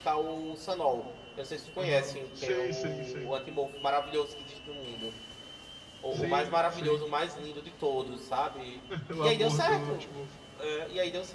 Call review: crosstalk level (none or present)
present